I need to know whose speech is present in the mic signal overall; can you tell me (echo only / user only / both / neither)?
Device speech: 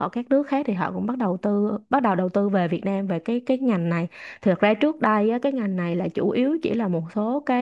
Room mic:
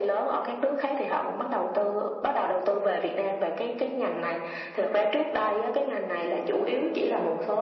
echo only